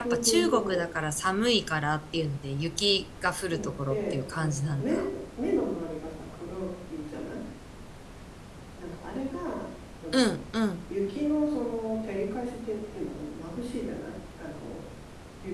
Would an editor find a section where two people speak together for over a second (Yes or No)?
Yes